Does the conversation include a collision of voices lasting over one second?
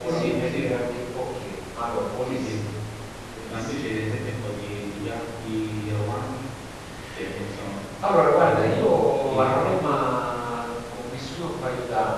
Yes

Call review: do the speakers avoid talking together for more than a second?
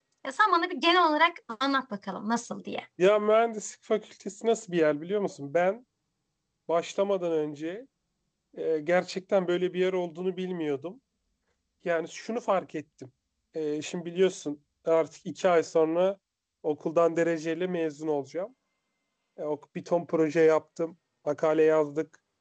Yes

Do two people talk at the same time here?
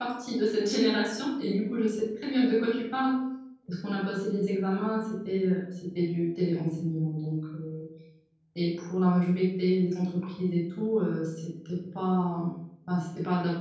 No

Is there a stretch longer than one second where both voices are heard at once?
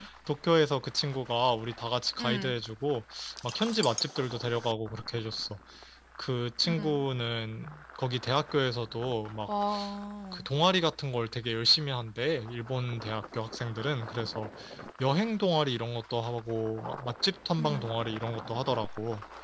No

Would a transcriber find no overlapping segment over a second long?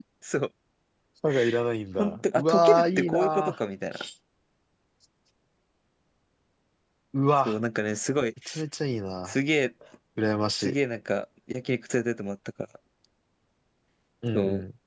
No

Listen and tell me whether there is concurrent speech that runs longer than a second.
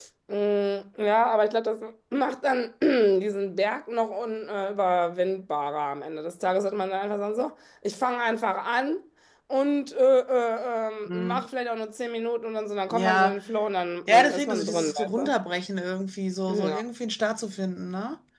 Yes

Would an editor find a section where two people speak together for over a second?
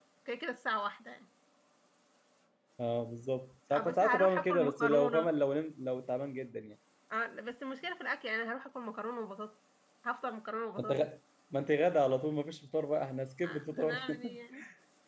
Yes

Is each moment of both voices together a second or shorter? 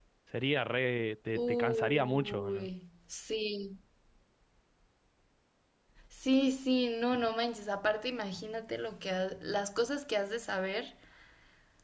No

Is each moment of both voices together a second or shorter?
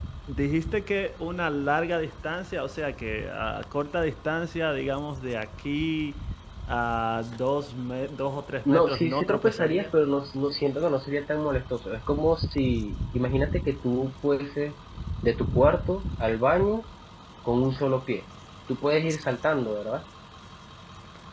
No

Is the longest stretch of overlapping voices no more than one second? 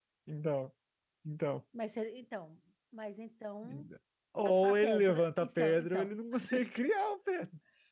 No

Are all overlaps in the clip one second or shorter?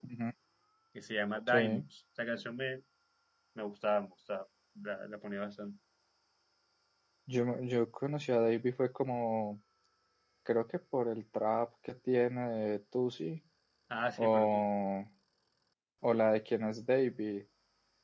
Yes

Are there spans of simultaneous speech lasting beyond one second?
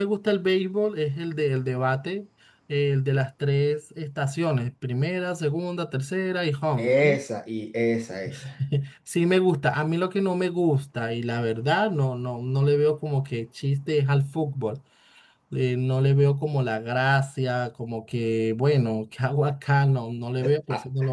No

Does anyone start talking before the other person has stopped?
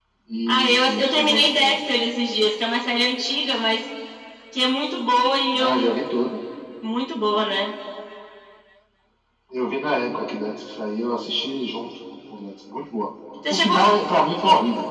Yes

